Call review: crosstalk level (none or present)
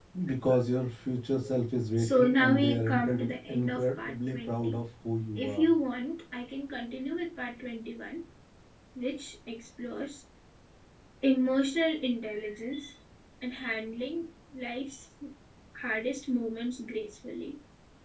present